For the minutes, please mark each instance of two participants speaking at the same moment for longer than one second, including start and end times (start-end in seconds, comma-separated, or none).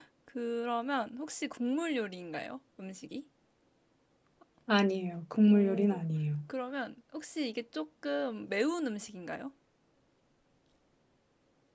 none